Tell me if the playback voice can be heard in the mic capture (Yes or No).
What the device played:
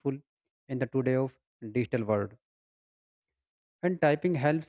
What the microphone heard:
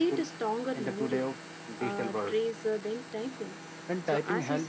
Yes